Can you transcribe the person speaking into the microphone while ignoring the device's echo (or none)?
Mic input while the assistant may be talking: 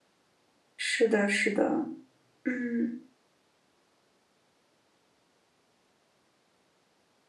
是的，是的，嗯。